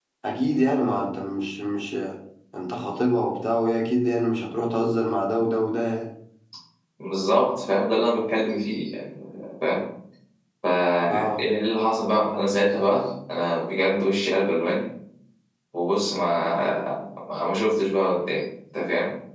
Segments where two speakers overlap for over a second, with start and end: none

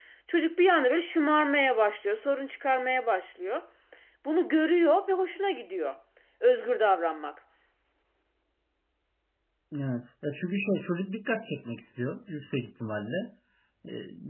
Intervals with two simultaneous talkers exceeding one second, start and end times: none

